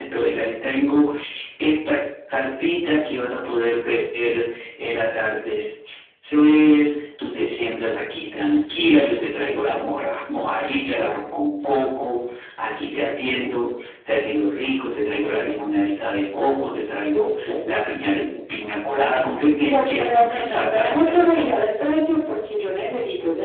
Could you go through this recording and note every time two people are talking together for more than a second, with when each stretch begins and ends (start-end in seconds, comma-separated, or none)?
19.6-21.6